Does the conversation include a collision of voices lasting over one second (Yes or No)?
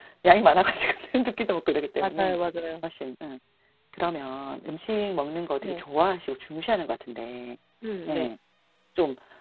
No